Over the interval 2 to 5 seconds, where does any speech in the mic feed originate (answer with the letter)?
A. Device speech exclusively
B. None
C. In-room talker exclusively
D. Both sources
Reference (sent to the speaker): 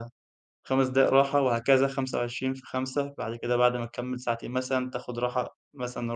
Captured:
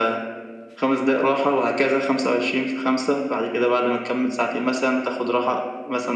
A